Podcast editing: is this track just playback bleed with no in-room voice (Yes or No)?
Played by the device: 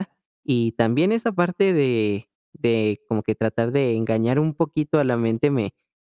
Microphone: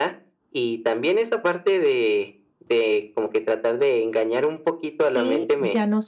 No